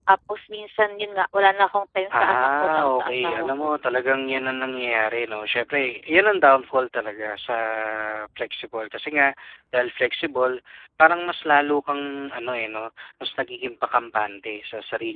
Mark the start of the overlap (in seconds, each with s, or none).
2.1 s